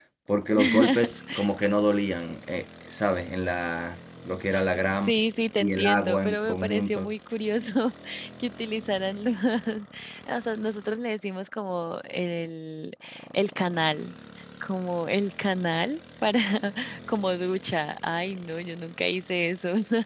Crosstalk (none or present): present